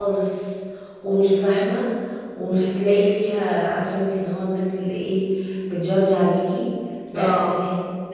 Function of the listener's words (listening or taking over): listening